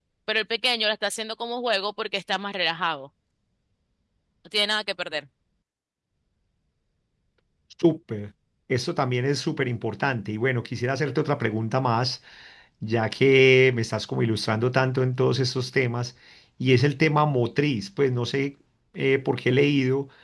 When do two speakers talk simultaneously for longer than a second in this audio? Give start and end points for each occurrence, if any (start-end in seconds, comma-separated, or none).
none